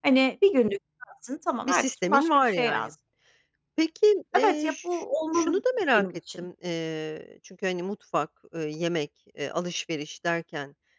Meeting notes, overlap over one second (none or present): present